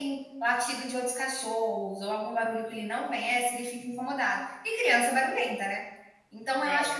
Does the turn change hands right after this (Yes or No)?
No